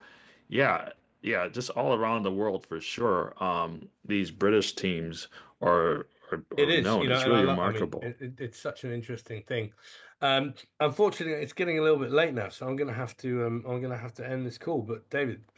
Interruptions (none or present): present